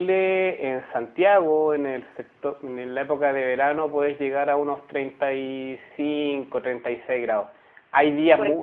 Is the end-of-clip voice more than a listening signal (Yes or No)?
No